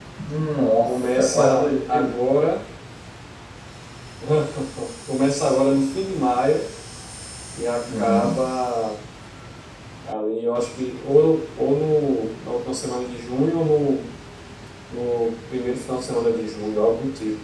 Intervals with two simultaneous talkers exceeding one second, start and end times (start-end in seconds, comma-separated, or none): 0.9-2.1